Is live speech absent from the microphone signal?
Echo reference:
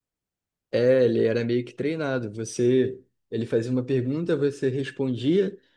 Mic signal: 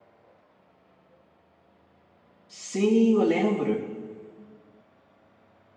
No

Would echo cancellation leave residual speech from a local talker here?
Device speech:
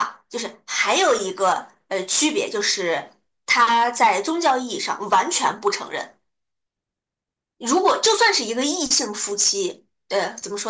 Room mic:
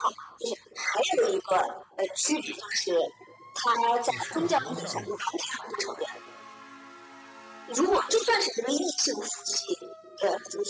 Yes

